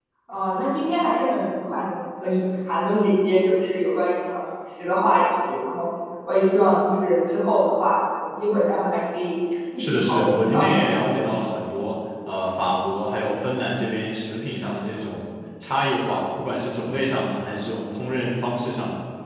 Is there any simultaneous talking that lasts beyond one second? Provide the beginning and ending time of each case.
9.8-11.3

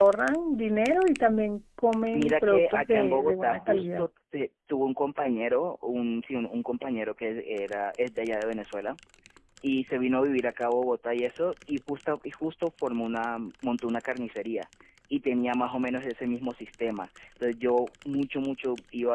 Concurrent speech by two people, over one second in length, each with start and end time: 2.1-4.0

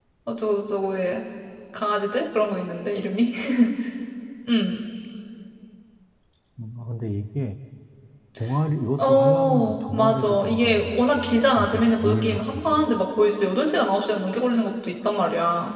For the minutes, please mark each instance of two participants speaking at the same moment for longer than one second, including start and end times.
9.0-12.7

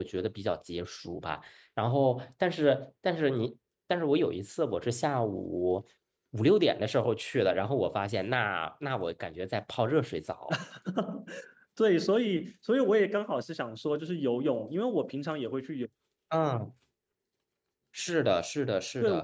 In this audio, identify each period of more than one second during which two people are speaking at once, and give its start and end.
none

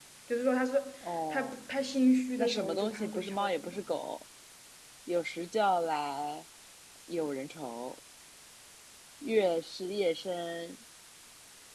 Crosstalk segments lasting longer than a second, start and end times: 2.4-3.8

